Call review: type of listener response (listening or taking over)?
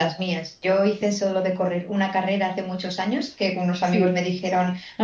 listening